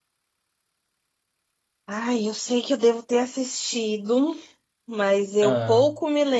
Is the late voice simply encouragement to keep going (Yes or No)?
Yes